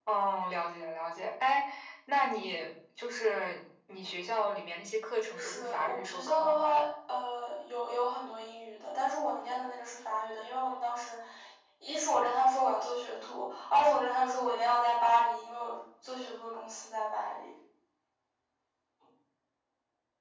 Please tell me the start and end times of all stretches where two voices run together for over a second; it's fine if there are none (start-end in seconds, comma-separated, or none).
5.3-6.6